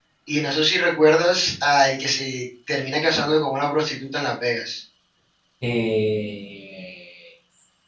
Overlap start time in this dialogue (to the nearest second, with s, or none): none